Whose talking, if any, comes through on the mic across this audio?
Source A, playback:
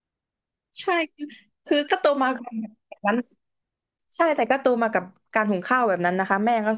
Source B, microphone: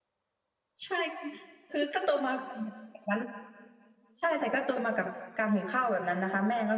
echo only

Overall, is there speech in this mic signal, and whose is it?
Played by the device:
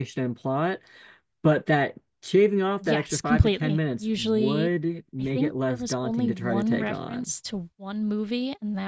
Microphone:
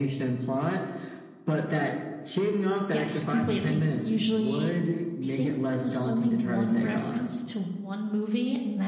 echo only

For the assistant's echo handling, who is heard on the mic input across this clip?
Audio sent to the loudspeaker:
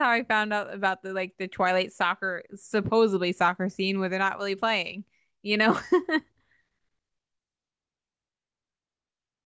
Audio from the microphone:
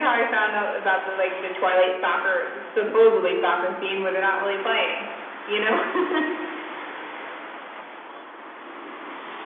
echo only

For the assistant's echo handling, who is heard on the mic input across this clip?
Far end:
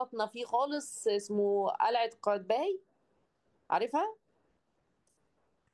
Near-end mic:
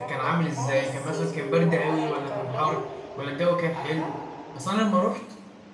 both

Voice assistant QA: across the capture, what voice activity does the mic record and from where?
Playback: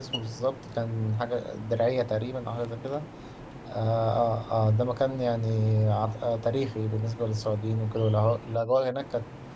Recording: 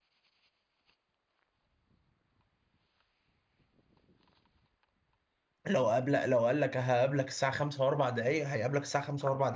user only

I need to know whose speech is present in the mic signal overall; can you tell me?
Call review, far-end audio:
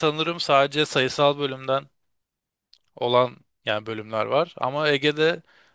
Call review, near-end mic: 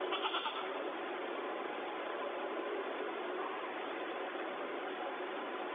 neither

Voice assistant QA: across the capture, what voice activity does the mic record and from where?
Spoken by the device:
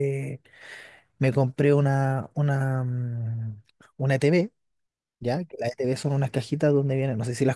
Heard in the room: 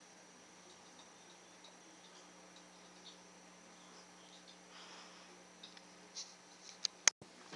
neither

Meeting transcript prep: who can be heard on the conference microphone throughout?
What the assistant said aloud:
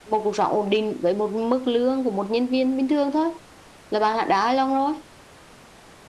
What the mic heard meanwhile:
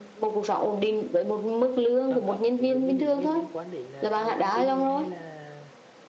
both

